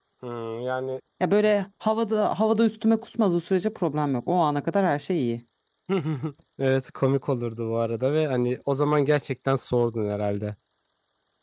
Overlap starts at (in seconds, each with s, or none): none